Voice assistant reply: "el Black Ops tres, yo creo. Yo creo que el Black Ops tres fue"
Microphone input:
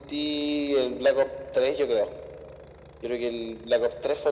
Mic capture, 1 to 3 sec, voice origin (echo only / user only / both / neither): echo only